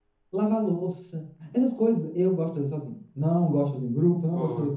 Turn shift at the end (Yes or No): No